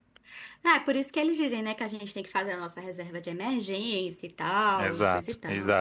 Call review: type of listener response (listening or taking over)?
taking over